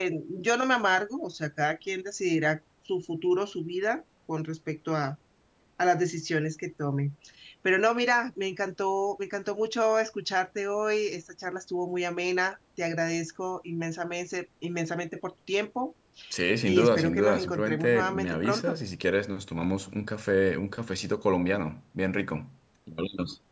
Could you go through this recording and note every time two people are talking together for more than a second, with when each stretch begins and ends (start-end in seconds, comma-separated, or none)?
16.6-18.8